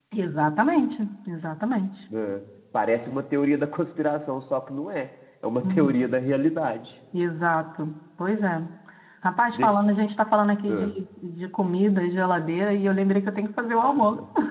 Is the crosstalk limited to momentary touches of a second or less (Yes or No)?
Yes